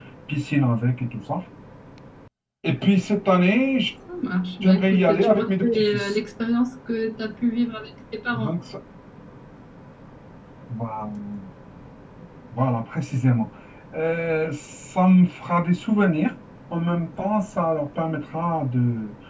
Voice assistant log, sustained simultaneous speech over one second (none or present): present